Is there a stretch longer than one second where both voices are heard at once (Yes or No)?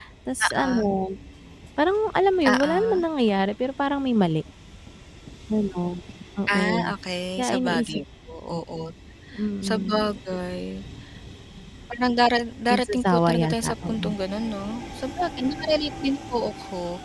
Yes